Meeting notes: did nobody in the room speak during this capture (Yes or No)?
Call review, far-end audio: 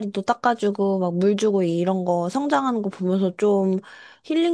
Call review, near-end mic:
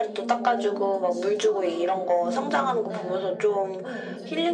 No